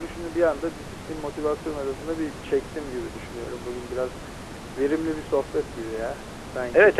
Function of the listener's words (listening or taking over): taking over